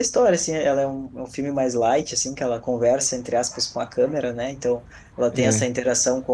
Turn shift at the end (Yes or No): No